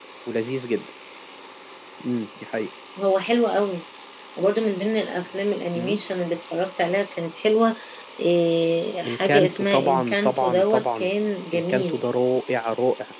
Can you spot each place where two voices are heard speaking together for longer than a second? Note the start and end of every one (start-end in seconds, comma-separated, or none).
9.1-11.1